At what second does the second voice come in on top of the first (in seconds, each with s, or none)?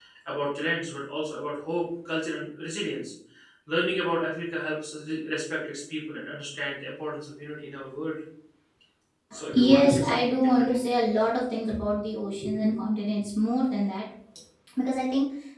9.5 s